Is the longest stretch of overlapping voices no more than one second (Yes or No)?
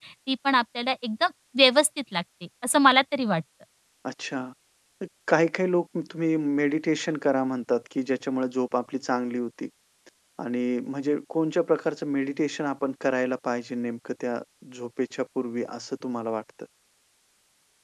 Yes